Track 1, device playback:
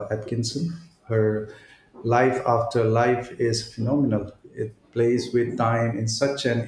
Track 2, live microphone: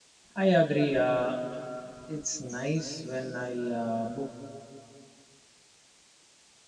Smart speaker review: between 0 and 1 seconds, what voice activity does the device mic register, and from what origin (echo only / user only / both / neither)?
user only